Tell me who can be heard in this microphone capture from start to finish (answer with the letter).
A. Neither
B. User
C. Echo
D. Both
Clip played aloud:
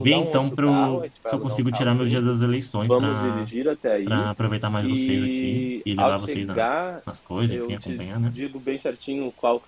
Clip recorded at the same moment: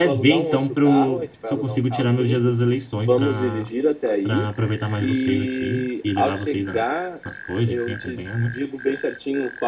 C